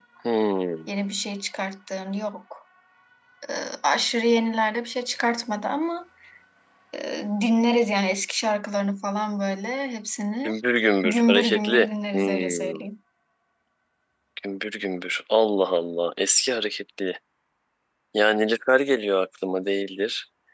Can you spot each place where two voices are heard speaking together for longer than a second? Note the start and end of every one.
11.0-12.9

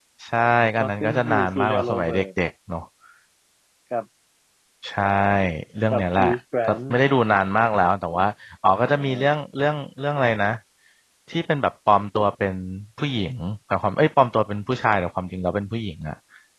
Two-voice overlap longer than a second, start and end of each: 0.8-2.2

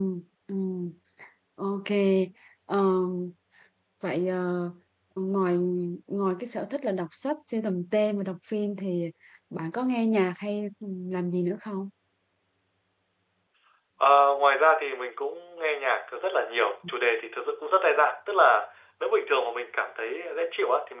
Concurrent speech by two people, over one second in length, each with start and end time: none

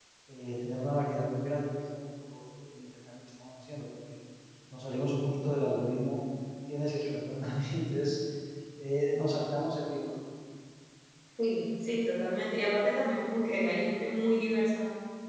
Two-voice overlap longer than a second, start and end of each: none

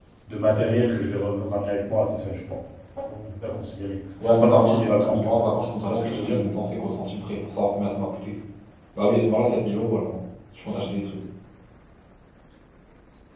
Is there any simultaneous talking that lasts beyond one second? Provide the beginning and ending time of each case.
4.2-5.4

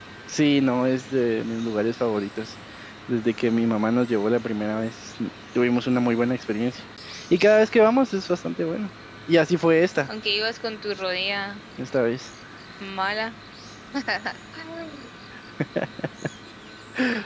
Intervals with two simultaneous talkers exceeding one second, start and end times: none

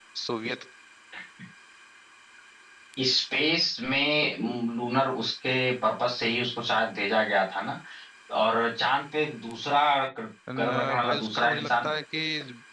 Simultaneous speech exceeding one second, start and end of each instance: 10.6-11.9

